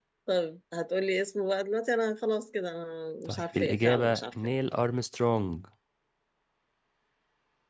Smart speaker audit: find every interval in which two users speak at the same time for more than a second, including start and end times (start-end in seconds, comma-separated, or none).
3.2-4.5